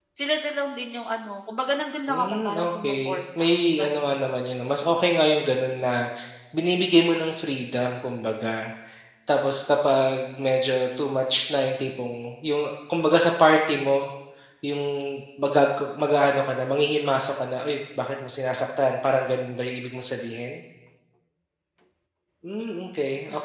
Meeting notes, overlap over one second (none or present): present